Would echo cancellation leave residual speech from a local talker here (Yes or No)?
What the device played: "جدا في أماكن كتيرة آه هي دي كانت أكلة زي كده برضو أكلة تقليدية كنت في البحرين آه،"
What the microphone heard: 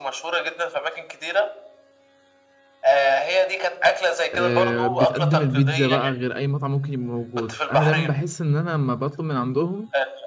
Yes